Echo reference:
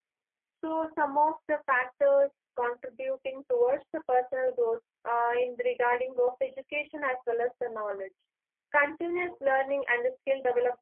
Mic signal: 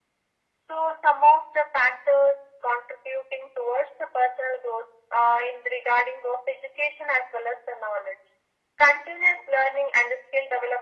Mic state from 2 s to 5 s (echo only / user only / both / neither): echo only